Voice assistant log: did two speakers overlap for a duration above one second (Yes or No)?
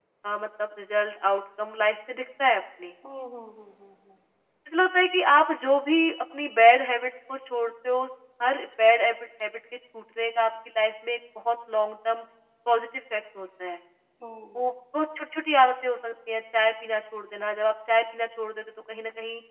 No